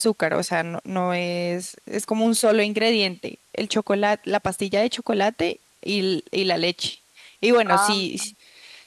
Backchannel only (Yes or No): Yes